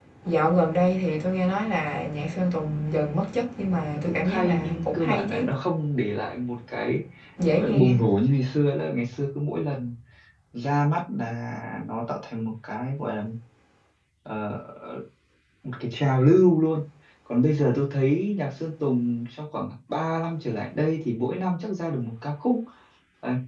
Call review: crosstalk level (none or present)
present